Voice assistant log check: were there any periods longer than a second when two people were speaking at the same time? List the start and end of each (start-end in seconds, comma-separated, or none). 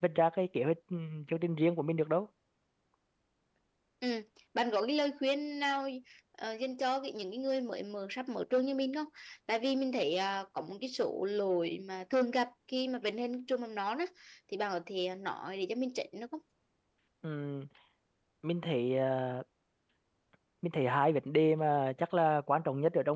none